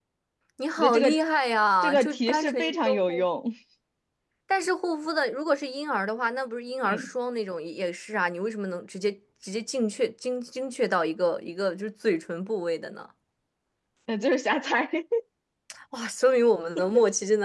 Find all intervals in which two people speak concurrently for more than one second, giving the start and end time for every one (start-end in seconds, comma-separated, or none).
1.8-3.2